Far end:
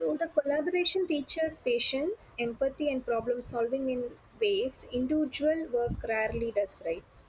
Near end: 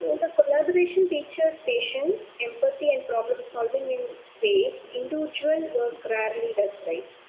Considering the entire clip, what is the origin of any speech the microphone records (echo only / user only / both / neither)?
echo only